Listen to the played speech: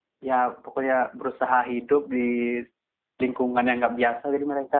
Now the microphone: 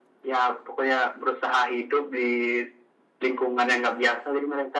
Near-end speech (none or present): none